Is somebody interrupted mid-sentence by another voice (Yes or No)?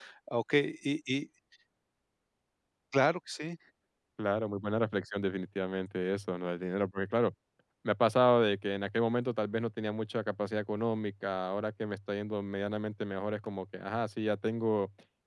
No